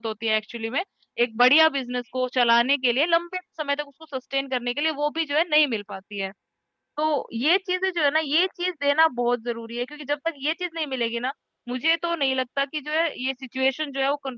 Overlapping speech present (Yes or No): No